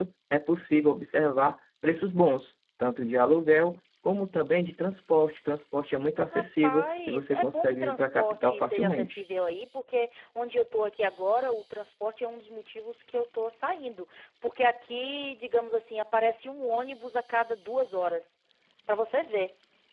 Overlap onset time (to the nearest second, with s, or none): 6 s